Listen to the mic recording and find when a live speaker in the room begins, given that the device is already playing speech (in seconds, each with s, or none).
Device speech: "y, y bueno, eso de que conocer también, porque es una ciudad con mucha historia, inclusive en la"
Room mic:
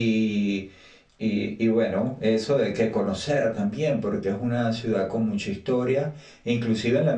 none